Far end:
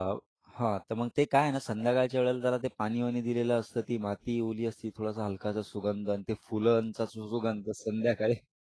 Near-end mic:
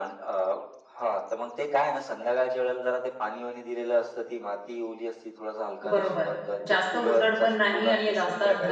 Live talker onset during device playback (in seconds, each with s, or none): 5.9 s